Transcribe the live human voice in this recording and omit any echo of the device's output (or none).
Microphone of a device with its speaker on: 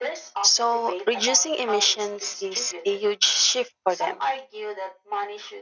so reducing emissions is a huge shift for them.